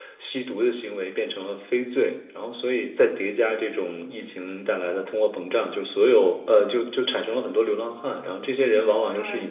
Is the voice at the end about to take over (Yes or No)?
No